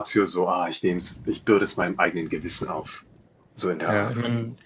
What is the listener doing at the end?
taking over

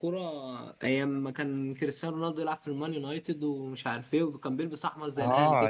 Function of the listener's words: taking over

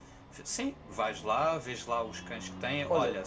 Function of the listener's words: listening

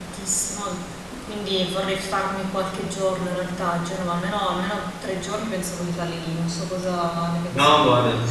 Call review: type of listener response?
taking over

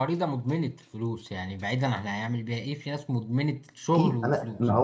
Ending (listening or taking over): taking over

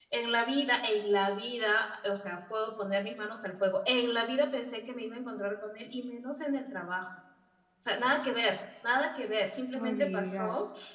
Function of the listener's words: listening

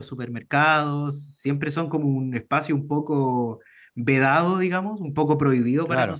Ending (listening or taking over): listening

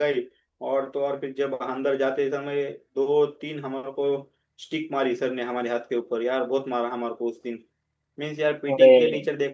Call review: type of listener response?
listening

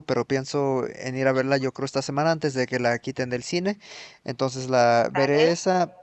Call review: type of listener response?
listening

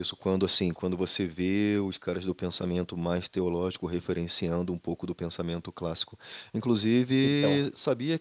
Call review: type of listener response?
listening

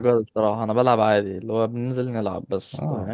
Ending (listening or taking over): taking over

